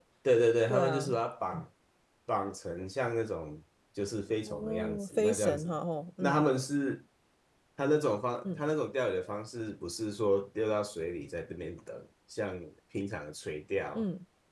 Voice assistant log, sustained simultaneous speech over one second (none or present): present